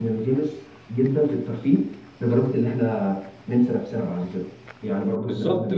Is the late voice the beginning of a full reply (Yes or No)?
Yes